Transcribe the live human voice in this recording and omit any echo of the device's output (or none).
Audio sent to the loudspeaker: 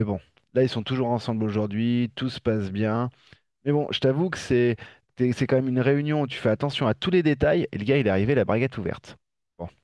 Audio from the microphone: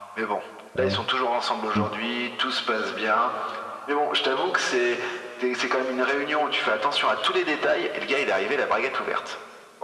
Ah ouais. Mmh.